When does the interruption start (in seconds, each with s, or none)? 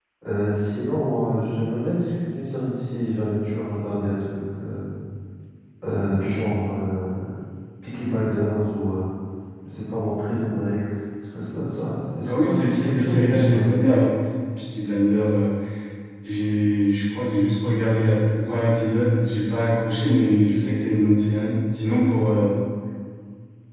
12.2 s